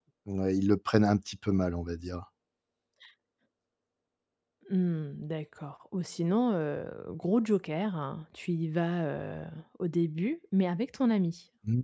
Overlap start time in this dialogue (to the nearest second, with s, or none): none